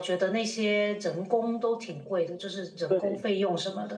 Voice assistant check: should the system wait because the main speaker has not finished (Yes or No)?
Yes